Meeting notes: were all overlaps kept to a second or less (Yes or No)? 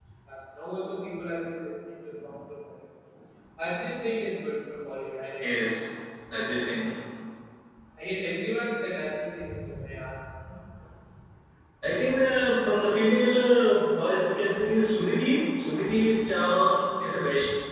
Yes